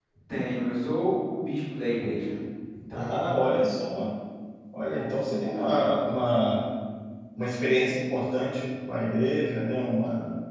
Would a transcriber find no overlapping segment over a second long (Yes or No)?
Yes